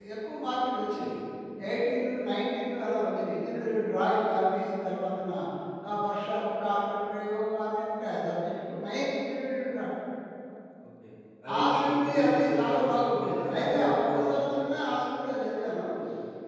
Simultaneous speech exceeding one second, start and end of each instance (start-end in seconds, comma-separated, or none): 11.6-14.2